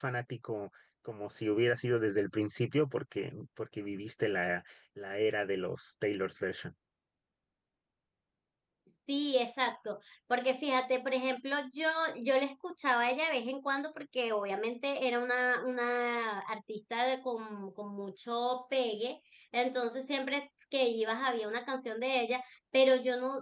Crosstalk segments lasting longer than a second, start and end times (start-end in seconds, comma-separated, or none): none